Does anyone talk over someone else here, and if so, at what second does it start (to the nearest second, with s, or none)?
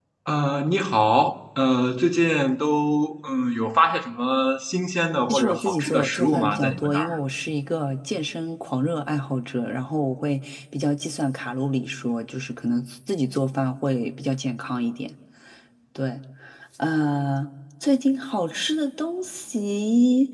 5 s